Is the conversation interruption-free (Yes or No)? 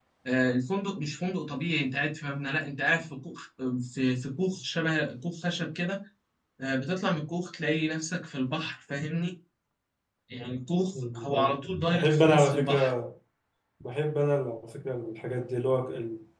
No